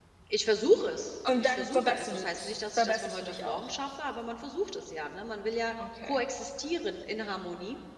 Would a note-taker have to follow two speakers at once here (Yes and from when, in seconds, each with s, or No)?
Yes, from 1.4 s